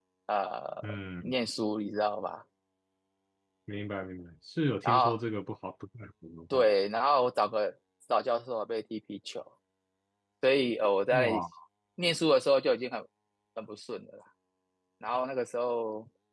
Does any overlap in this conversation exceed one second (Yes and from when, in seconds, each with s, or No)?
No